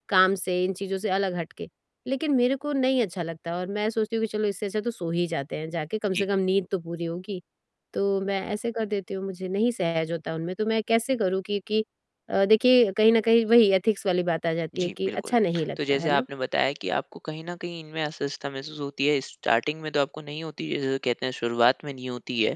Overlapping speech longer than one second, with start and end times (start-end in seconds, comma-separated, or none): none